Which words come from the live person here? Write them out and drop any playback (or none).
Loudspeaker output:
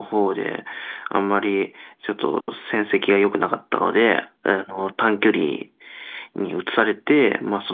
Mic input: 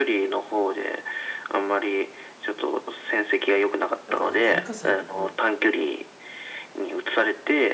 やっぱりその文化祭って、まあ、う